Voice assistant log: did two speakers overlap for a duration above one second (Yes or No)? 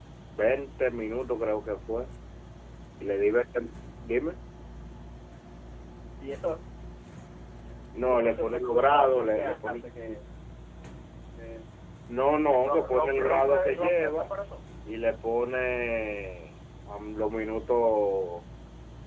Yes